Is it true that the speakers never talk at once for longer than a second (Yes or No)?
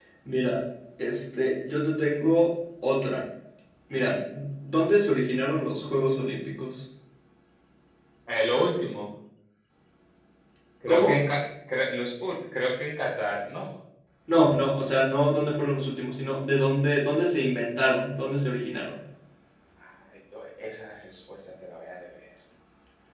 Yes